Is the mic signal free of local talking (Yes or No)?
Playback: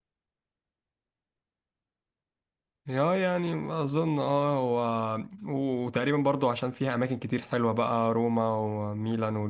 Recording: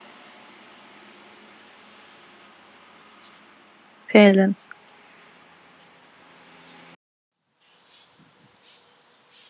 No